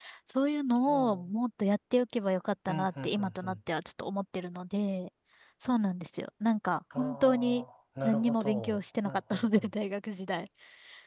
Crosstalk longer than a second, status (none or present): present